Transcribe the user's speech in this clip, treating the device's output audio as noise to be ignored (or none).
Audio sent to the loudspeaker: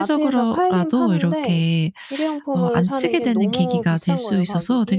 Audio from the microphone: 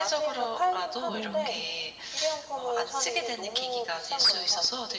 네.